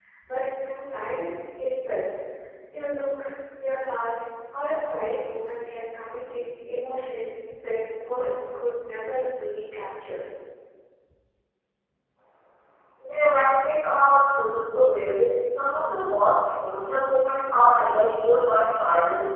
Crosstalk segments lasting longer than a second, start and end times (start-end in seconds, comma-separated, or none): none